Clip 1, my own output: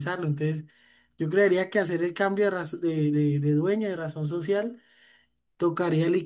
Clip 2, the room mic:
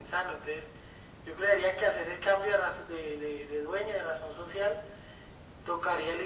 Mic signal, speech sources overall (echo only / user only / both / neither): echo only